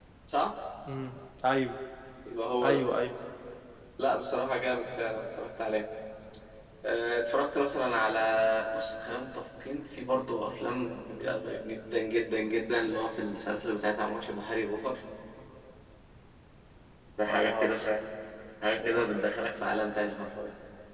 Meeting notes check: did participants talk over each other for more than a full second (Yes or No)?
No